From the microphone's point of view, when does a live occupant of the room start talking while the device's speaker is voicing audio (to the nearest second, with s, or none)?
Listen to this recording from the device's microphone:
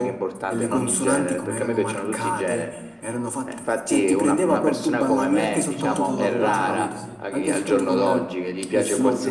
6 s